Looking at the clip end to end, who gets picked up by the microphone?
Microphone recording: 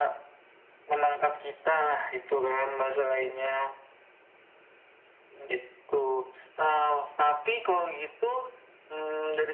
echo only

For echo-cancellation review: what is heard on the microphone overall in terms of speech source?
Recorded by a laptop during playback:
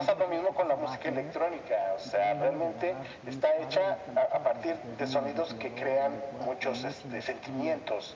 both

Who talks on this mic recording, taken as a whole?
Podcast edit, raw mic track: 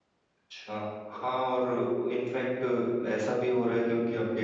user only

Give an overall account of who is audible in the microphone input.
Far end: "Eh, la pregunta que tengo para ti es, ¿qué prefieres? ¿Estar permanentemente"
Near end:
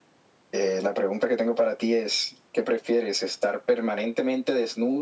echo only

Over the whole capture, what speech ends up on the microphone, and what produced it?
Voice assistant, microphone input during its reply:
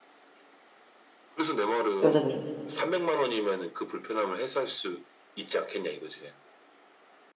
both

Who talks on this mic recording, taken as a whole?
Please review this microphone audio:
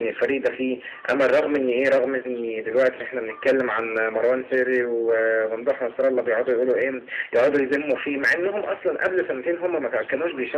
echo only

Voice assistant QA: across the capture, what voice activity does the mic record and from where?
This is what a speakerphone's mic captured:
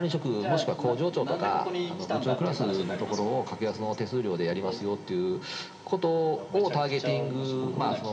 both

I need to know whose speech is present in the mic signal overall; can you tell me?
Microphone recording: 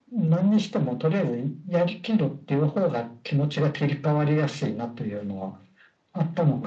echo only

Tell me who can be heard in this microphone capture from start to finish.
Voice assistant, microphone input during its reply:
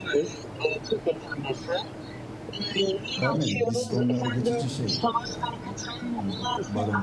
both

